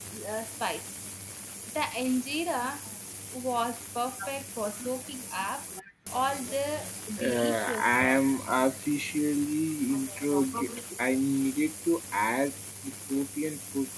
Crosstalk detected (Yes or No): Yes